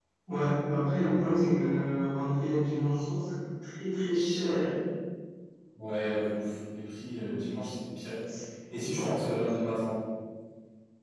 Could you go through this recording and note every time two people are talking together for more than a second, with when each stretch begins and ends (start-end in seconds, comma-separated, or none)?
none